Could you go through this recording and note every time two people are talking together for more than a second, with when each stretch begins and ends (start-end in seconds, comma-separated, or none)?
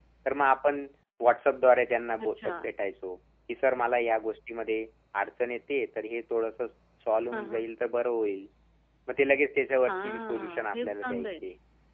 9.8-11.3